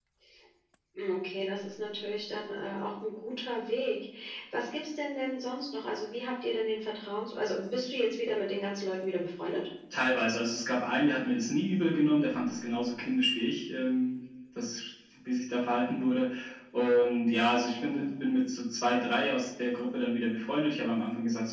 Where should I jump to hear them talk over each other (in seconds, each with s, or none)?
none